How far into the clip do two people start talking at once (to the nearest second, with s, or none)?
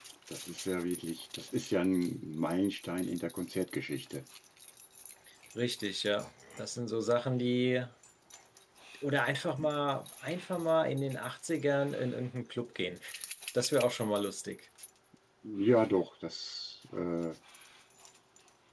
none